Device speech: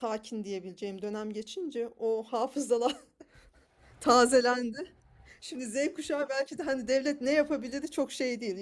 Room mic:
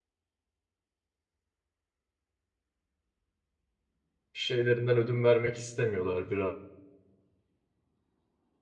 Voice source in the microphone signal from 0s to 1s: neither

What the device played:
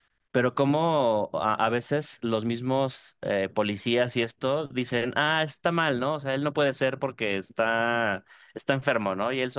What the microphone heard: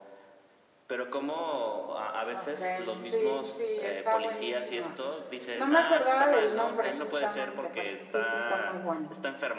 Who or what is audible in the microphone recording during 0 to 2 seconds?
echo only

